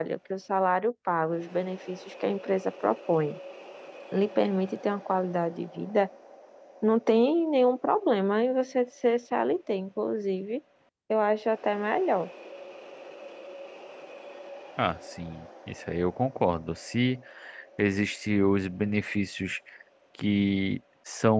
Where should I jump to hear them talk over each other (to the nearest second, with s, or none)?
none